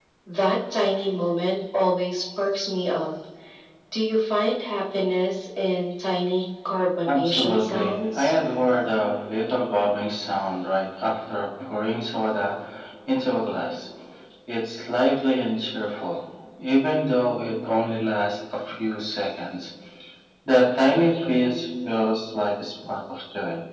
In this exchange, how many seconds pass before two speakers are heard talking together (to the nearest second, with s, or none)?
7 s